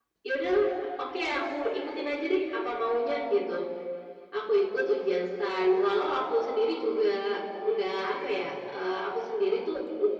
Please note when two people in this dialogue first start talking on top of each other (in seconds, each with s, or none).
6.8 s